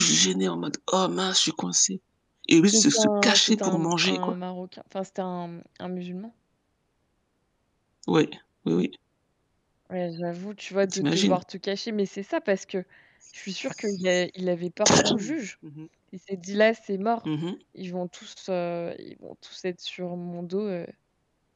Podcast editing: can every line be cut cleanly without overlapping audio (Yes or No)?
No